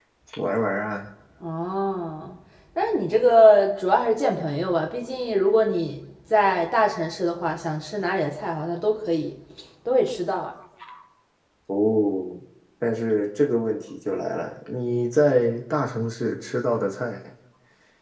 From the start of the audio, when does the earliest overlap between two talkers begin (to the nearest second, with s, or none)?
none